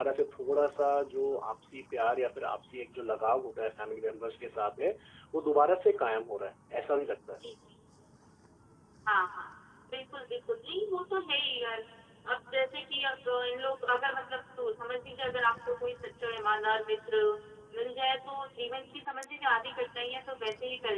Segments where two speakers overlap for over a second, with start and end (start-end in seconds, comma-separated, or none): none